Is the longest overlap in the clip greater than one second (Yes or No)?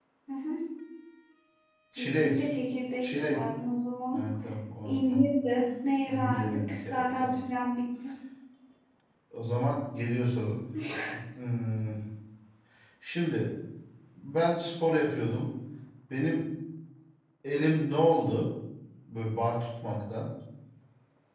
Yes